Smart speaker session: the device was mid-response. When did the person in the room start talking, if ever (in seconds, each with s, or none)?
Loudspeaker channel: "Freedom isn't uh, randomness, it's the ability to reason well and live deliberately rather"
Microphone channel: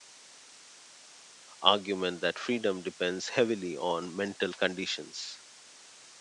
1.6 s